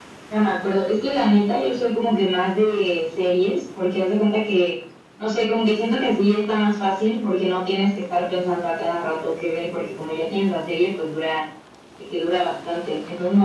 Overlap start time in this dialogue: none

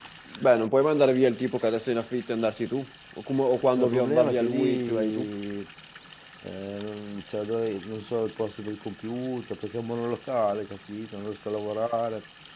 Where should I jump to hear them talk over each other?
3.8 s

